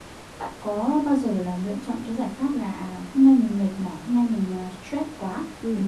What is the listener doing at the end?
listening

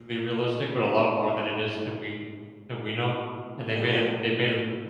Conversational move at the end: listening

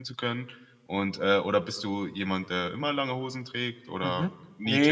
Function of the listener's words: taking over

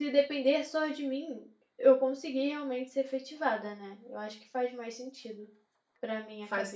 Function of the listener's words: taking over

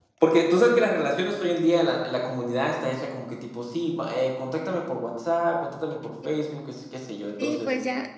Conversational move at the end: taking over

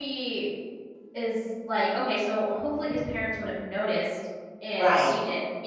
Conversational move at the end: listening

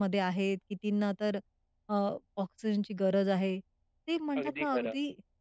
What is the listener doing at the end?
listening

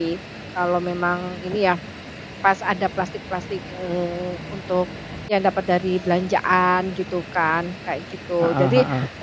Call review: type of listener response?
listening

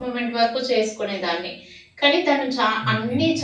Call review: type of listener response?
listening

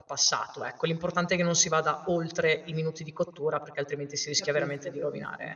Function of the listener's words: taking over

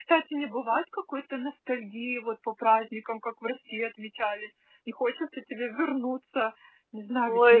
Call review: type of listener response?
taking over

